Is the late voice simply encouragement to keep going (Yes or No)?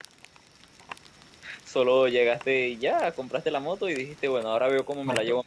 No